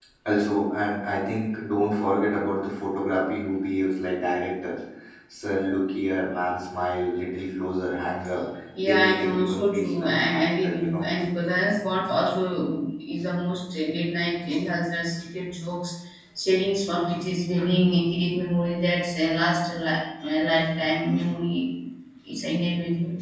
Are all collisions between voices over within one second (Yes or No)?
No